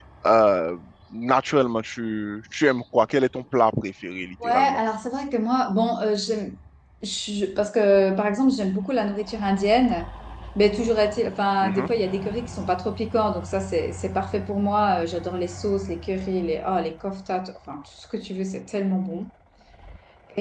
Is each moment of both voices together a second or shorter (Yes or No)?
Yes